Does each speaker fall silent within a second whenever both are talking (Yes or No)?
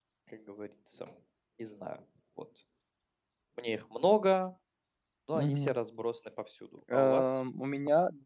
Yes